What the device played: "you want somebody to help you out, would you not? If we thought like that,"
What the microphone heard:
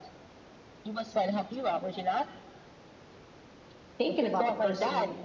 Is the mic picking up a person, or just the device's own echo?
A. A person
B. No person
A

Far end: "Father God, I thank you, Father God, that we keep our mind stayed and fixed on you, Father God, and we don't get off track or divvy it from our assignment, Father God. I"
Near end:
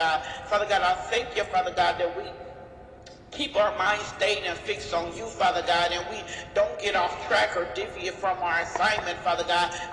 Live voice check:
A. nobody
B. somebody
A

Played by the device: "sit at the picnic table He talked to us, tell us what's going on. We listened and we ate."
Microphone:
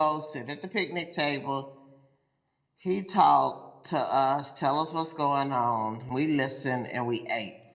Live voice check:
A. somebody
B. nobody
B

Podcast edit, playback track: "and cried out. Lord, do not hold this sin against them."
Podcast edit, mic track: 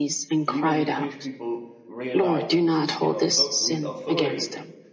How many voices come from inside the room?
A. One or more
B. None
A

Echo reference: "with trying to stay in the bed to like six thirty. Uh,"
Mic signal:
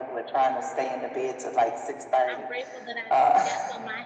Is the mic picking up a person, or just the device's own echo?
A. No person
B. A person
B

